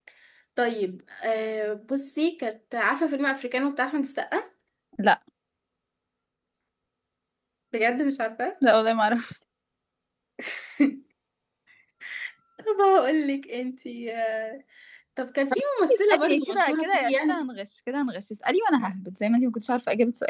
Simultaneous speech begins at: 16 s

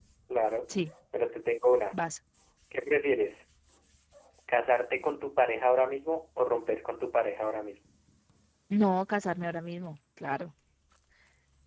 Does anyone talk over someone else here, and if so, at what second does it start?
none

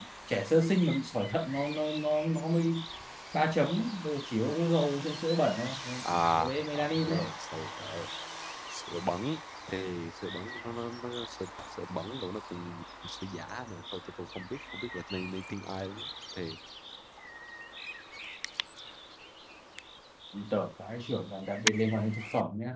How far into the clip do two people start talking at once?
6 s

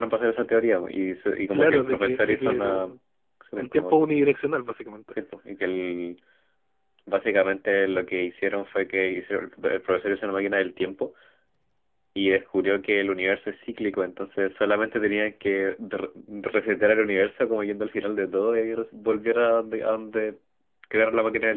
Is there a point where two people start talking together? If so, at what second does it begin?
2 s

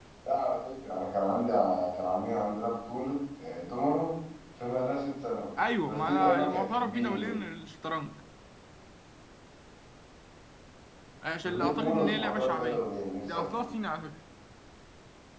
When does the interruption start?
6 s

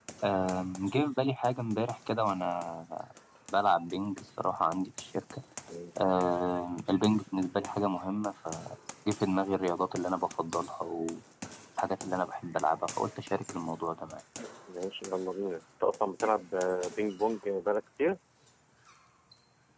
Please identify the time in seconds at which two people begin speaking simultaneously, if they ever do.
none

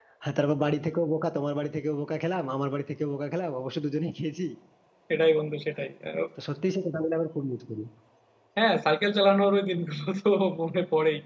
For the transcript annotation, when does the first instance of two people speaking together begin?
none

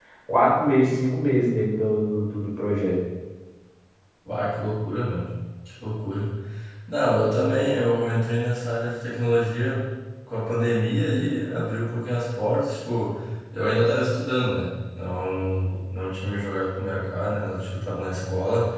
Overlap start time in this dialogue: none

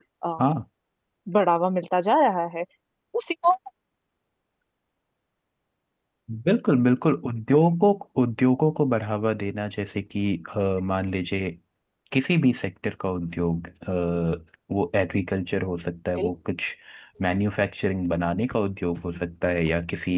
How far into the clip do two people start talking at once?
none

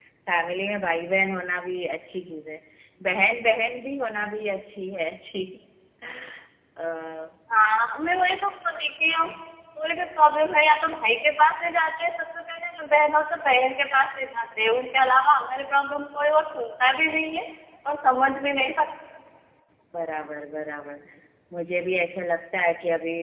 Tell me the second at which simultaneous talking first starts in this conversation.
none

